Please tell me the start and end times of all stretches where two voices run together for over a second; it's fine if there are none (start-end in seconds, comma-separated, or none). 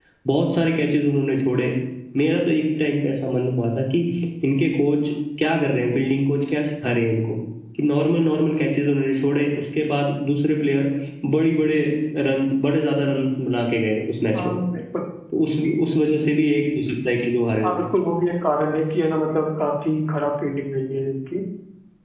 none